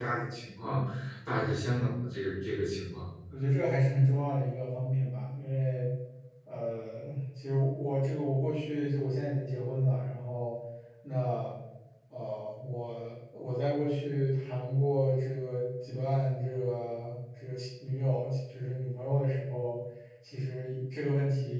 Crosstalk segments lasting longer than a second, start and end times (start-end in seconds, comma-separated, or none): none